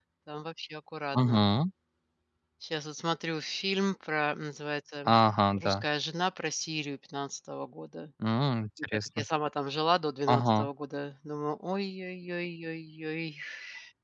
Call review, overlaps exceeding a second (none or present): none